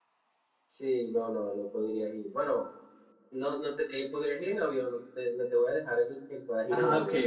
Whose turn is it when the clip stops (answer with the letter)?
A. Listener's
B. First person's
A